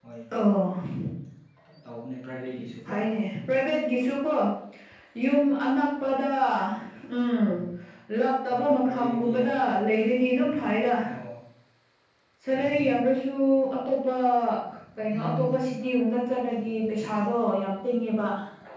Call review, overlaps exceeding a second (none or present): present